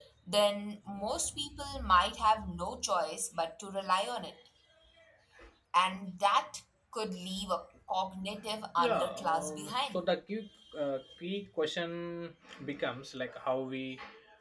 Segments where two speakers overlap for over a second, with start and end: 8.8-10.0

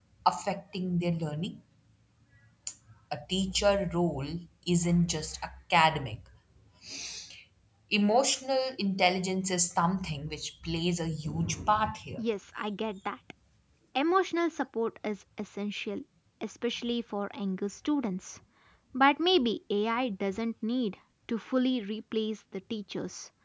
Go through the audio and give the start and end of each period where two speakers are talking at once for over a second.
none

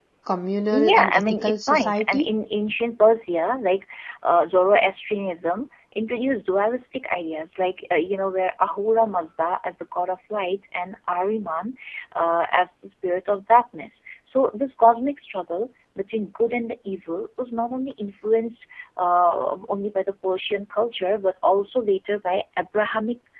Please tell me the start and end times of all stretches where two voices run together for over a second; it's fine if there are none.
0.7-2.3

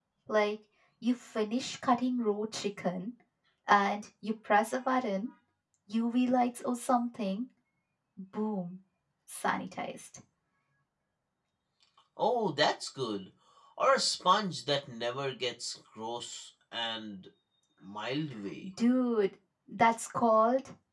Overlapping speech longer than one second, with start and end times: none

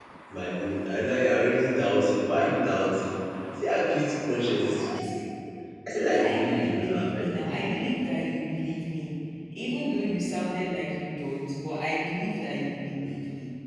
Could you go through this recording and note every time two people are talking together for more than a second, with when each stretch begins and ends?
5.9-7.8

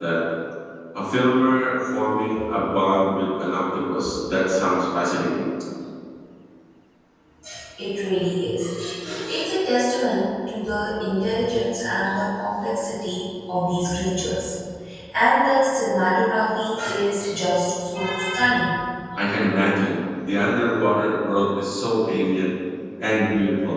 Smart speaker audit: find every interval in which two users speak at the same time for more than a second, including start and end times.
none

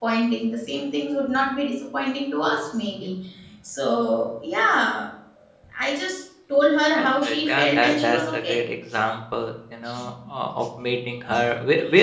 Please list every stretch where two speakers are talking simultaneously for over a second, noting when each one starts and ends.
7.0-8.6

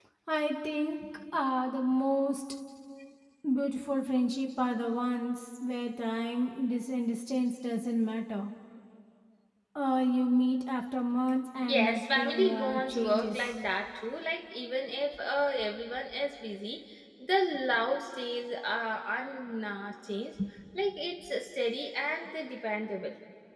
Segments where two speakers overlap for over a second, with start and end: 11.6-13.5

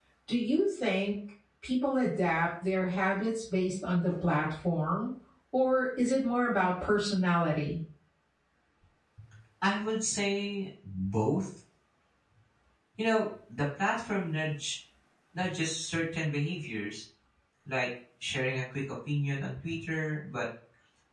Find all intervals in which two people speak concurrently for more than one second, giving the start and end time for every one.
none

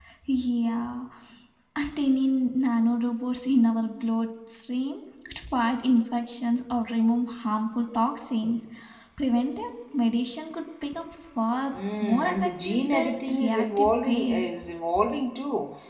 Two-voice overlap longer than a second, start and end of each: 11.7-14.5

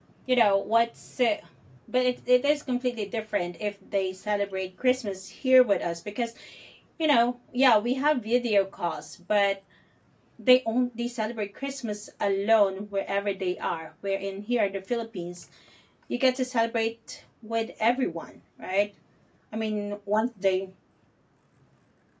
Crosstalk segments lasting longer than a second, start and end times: none

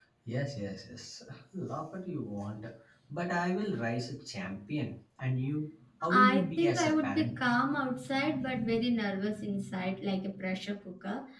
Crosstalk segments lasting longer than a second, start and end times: 6.1-7.3

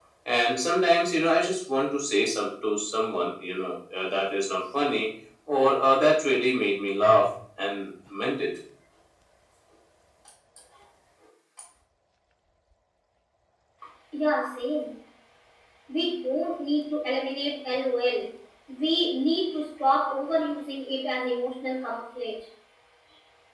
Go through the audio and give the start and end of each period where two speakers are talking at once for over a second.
none

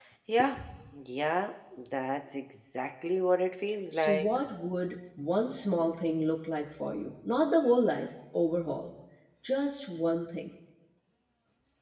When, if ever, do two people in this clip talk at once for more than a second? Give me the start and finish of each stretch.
none

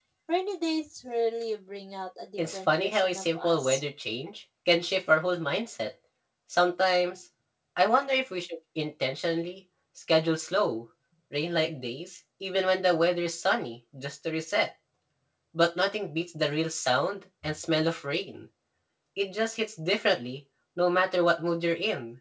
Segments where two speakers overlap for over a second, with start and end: 2.4-3.8

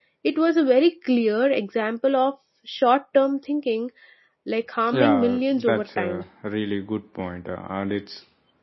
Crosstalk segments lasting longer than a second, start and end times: 4.9-6.2

